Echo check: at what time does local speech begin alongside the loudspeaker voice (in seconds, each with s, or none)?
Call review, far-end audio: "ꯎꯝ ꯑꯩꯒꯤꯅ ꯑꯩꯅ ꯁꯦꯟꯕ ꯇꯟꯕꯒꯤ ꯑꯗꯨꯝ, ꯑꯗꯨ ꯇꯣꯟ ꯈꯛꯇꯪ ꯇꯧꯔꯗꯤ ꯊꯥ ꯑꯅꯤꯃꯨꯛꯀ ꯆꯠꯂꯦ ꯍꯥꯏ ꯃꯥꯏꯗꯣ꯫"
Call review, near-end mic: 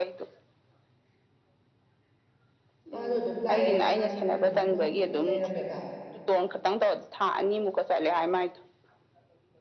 2.9 s